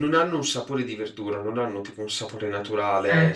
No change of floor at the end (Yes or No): Yes